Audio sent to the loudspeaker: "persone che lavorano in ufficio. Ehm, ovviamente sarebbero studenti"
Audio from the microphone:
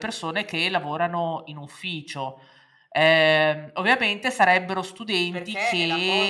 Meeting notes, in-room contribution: present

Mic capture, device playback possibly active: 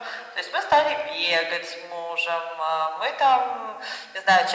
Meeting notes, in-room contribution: none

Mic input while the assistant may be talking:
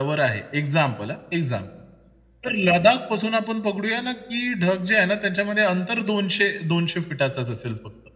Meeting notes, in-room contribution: none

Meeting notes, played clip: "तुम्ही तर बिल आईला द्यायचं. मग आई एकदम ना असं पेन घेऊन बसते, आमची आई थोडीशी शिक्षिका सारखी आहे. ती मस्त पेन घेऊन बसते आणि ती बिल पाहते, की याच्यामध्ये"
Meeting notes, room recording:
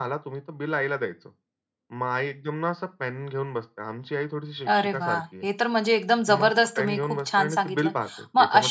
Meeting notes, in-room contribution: present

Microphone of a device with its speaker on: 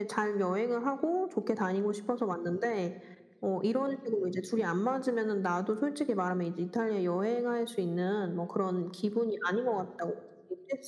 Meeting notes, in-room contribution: none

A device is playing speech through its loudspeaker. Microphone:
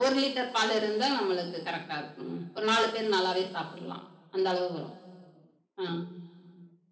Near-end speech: none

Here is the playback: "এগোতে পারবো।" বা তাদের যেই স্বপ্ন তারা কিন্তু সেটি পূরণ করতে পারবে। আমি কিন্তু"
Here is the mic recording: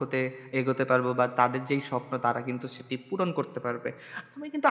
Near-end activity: none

